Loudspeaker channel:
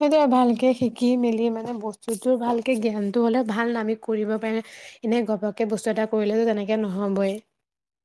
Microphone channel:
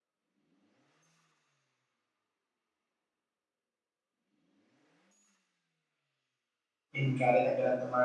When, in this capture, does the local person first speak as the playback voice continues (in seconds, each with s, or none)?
7.0 s